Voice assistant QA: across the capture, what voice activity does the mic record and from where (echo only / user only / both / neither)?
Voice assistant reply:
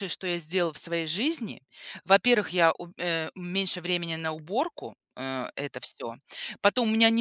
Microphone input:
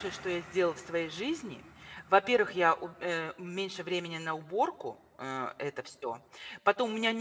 echo only